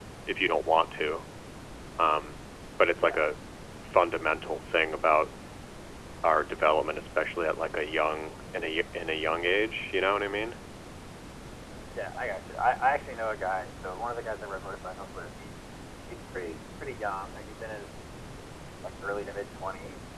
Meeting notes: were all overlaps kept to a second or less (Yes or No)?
Yes